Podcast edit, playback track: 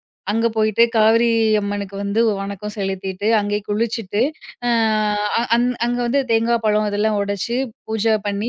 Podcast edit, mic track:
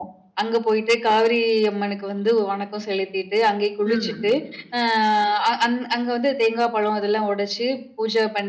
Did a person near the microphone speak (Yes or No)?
Yes